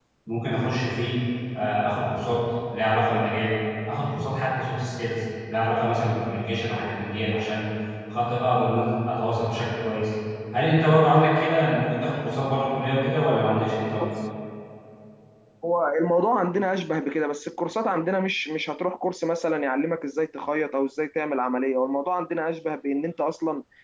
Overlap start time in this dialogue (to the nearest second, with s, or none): none